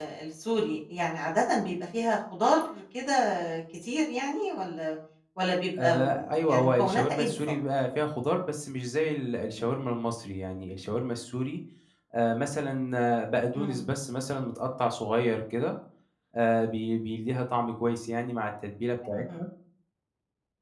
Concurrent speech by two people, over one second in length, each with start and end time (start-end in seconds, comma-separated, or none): 5.8-7.5